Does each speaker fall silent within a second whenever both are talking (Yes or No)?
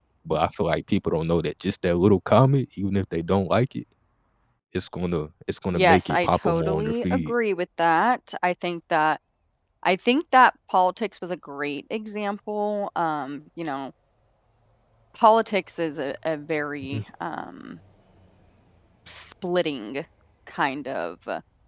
No